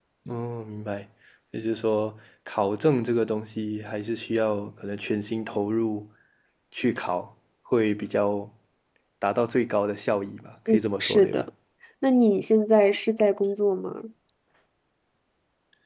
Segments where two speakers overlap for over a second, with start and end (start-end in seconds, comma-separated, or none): none